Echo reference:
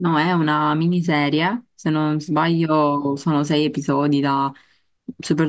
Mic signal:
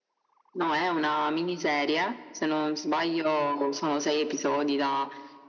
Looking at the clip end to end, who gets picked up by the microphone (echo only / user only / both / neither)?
echo only